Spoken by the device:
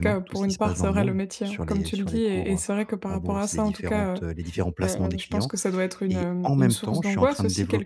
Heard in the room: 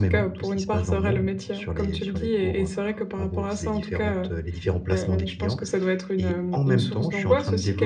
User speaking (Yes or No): No